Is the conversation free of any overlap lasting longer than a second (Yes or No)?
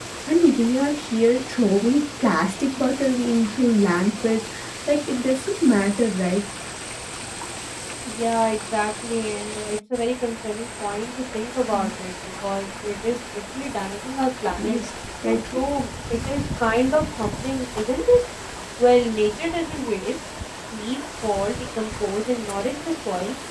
Yes